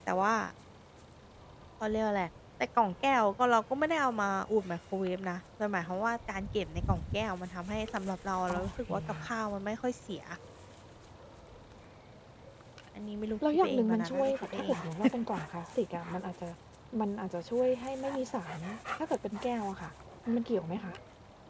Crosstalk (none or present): present